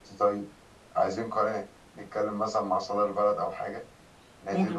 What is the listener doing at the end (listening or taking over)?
taking over